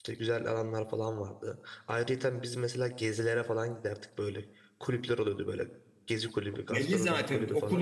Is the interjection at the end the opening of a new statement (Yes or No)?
Yes